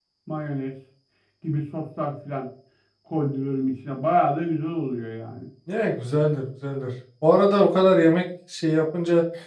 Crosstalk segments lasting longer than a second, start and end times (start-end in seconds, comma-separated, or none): none